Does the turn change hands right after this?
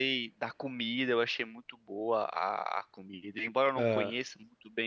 No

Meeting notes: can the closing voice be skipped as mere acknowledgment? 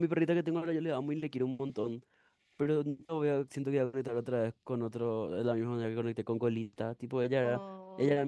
Yes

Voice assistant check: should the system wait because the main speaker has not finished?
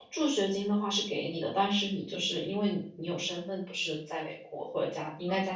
Yes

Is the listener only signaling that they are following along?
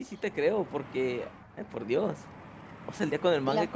Yes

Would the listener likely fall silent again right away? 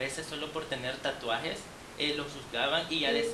Yes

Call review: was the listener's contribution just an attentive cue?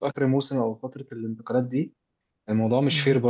Yes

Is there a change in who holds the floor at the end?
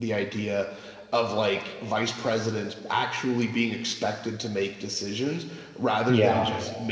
No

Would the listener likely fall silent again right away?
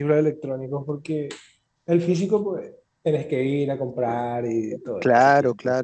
No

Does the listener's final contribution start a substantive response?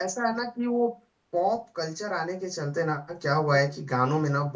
No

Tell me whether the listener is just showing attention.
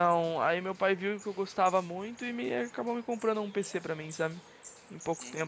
No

